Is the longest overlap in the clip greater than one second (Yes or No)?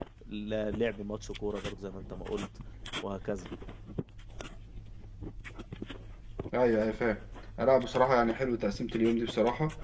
No